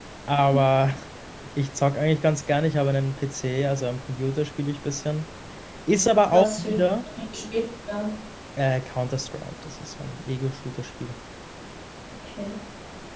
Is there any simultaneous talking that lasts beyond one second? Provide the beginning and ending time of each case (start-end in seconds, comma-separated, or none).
none